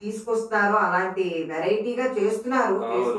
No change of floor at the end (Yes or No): No